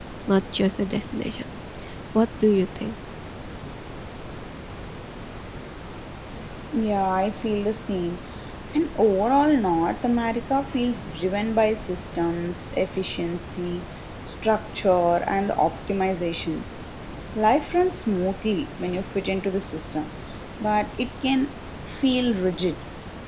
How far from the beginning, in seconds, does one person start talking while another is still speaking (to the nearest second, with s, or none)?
none